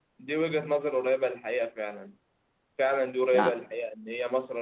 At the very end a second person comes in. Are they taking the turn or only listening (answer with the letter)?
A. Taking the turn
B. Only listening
B